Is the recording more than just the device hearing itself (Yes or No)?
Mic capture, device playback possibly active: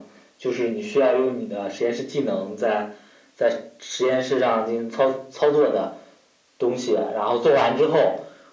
No